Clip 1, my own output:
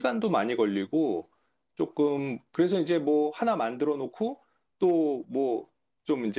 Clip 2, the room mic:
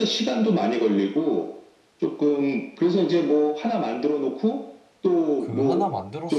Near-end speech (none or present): present